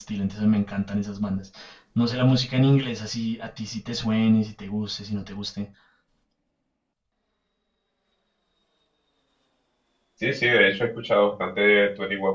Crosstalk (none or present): none